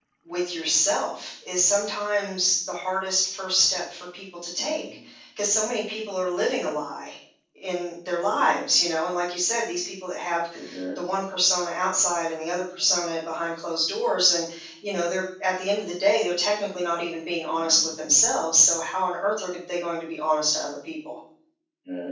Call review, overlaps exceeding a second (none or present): none